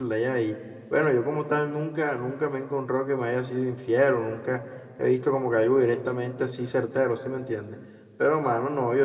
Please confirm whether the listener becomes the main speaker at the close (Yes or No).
No